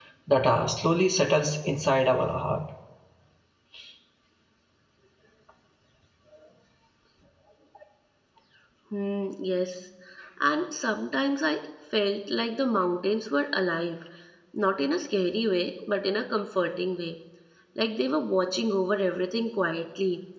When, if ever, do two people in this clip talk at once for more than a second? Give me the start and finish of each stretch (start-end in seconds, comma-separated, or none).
none